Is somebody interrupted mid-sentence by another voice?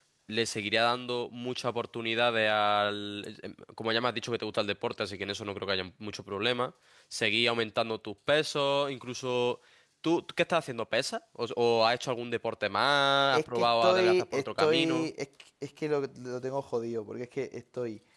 Yes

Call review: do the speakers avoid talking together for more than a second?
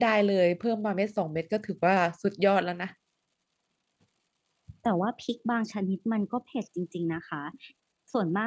Yes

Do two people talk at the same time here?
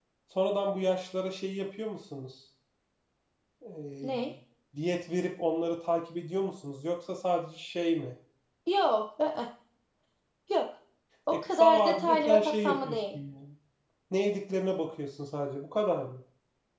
Yes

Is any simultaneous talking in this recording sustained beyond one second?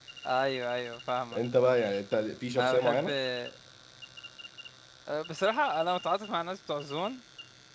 No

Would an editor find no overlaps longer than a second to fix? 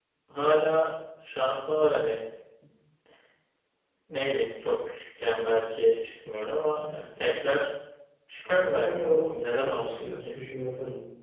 No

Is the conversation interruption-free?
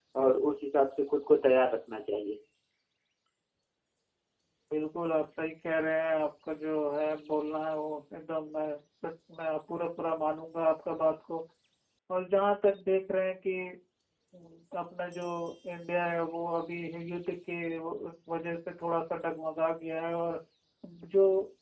Yes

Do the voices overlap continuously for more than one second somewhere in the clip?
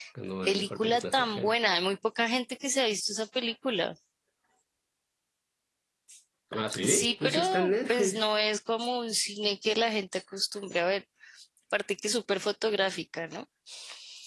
Yes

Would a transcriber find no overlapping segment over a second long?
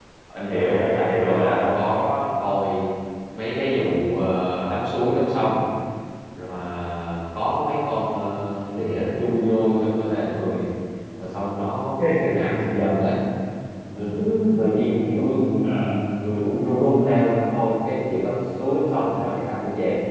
No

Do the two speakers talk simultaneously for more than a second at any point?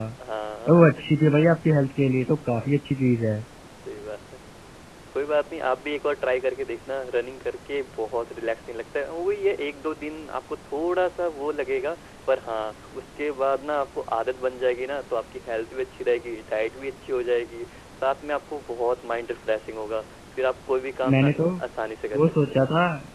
No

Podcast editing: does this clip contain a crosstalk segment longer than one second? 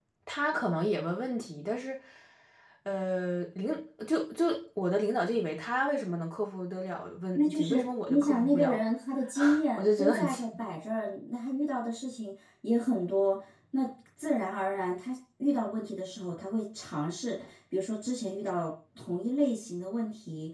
Yes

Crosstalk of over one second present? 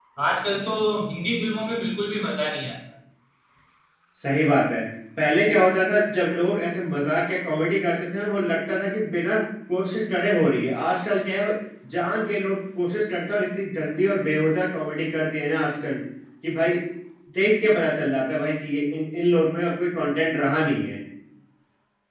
No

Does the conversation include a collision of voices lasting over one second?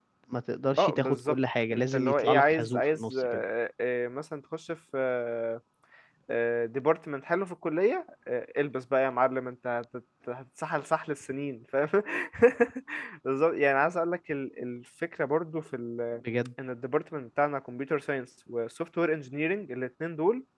Yes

